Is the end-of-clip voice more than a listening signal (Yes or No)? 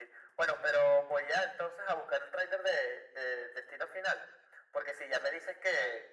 No